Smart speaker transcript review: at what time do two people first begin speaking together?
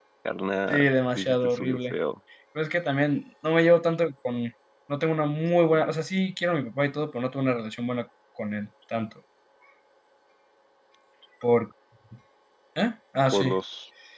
0.7 s

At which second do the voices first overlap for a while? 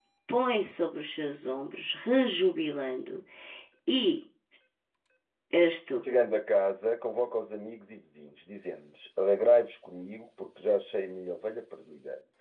none

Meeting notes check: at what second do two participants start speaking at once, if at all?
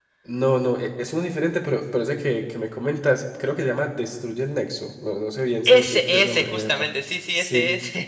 5.7 s

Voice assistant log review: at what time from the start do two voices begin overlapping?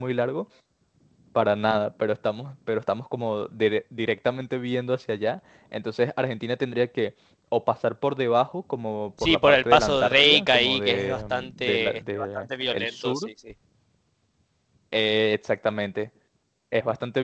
9.2 s

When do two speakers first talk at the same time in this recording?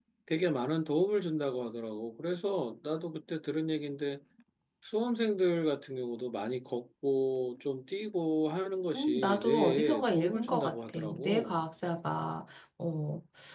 8.9 s

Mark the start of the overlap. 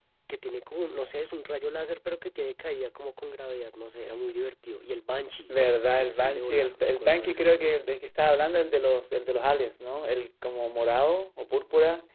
6.0 s

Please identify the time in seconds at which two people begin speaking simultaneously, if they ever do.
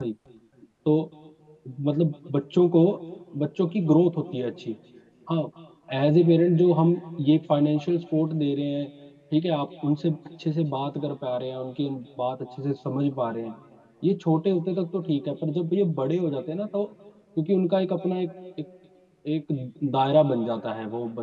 none

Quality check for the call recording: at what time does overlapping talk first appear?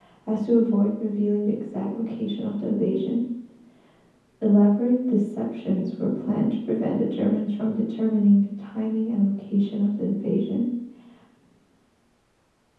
none

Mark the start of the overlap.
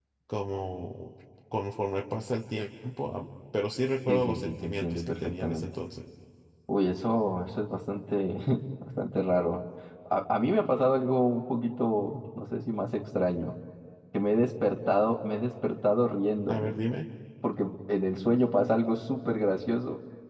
4.1 s

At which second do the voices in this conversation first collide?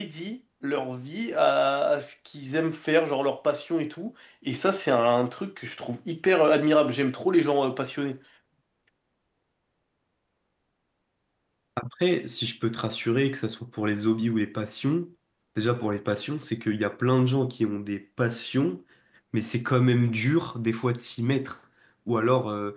none

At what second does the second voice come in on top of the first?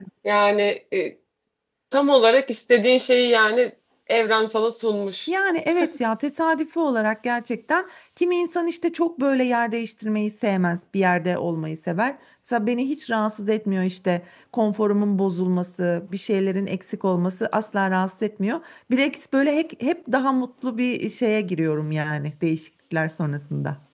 none

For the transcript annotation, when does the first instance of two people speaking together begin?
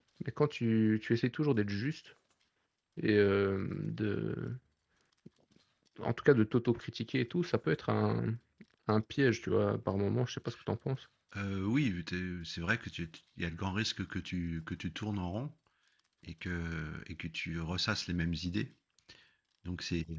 none

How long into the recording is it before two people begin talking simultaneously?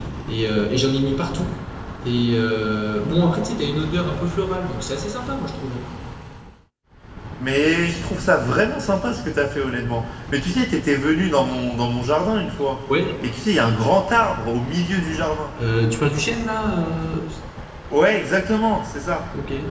none

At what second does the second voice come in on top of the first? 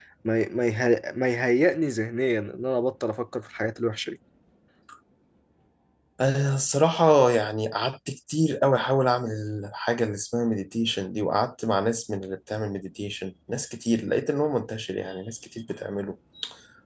none

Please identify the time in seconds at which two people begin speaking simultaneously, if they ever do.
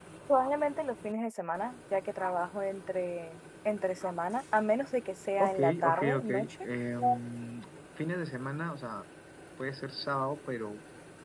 5.4 s

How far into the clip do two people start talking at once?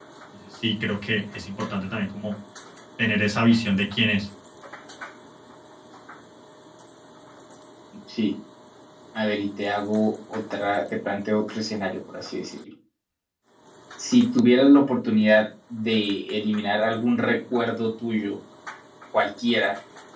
none

